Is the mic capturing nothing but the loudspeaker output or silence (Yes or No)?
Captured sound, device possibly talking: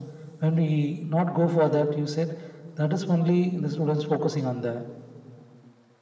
Yes